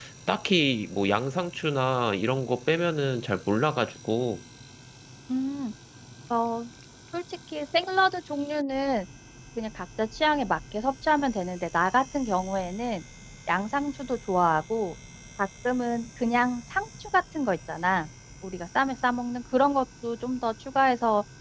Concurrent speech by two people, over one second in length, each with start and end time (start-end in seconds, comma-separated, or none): none